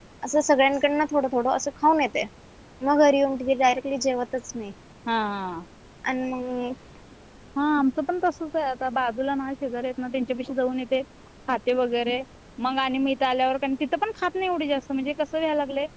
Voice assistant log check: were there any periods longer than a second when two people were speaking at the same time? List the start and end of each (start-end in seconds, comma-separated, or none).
none